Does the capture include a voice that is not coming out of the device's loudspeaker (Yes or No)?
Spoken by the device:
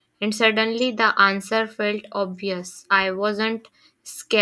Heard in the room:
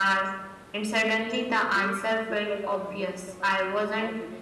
Yes